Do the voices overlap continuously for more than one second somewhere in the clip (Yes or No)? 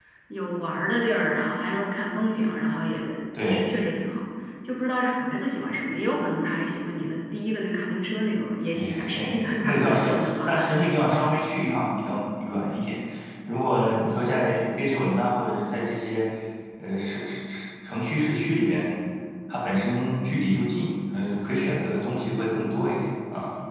Yes